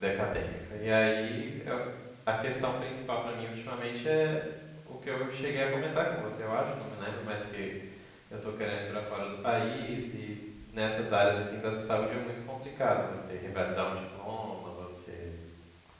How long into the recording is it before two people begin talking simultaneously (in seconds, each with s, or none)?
none